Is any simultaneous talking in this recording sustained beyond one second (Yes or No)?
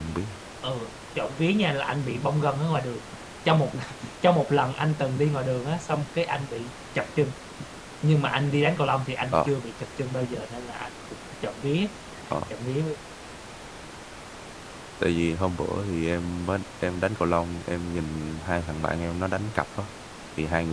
No